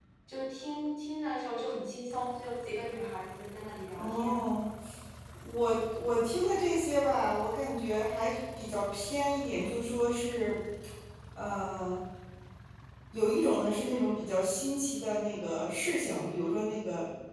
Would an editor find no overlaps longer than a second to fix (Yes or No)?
Yes